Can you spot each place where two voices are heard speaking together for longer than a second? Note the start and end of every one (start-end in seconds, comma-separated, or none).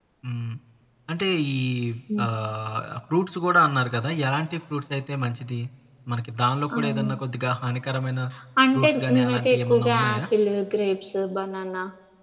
8.7-10.2